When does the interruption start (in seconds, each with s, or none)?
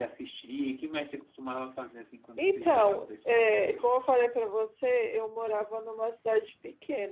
2.4 s